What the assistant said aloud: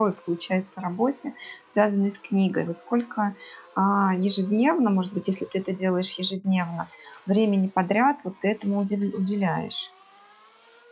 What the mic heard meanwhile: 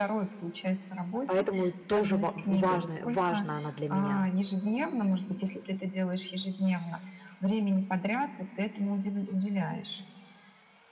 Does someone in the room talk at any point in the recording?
Yes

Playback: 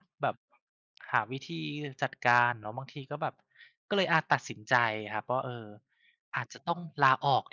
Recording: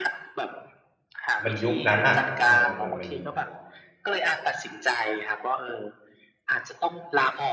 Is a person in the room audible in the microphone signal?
Yes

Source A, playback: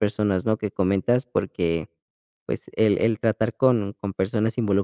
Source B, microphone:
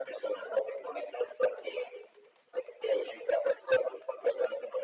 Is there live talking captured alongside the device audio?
No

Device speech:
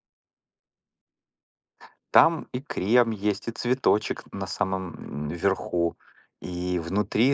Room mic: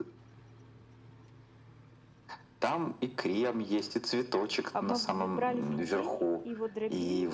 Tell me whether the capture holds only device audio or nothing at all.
No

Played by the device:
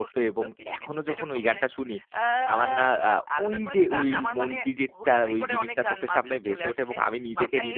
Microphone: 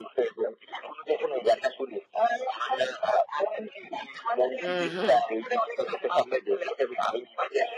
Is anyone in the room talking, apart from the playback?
Yes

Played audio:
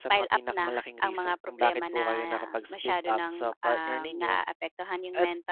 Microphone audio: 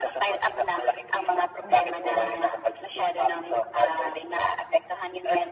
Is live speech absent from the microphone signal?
No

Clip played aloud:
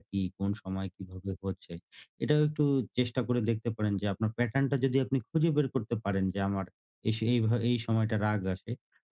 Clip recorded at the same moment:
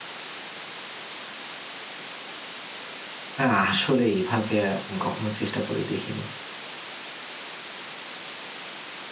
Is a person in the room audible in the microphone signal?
Yes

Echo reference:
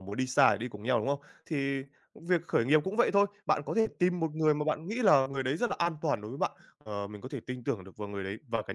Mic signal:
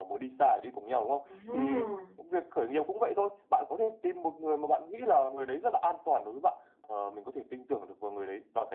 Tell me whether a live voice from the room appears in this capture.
Yes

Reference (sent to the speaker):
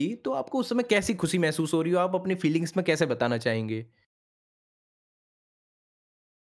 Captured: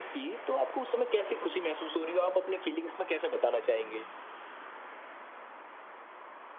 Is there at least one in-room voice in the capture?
No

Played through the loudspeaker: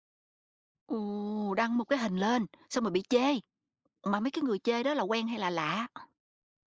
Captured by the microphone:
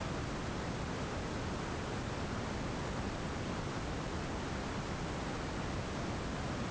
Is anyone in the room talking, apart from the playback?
No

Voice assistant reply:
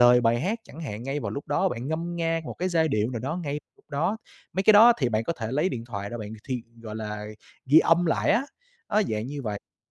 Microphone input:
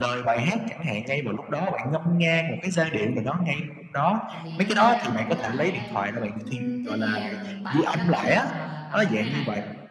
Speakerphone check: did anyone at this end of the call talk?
Yes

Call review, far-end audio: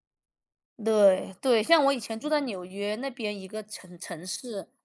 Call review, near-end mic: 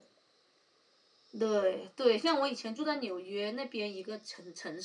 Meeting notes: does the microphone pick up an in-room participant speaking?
No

